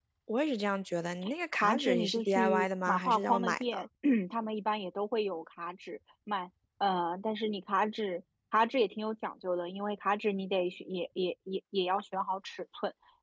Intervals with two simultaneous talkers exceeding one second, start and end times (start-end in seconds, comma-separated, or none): 1.5-3.9